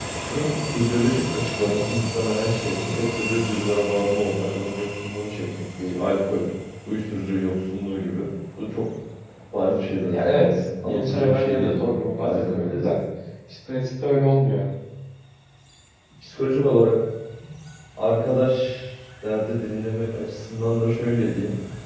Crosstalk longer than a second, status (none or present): present